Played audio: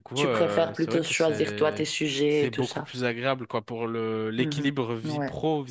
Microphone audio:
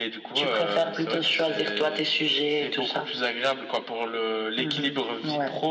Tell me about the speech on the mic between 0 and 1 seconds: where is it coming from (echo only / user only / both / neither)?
echo only